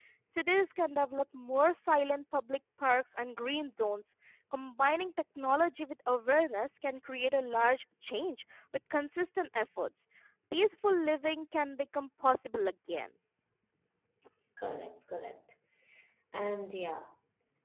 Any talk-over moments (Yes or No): No